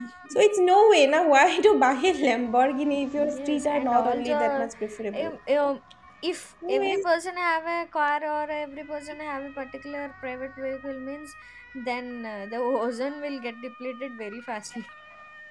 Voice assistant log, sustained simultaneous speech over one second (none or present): present